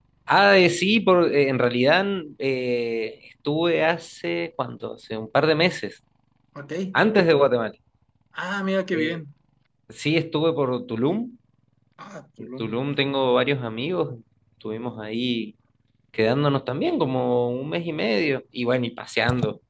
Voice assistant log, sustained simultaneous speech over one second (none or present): none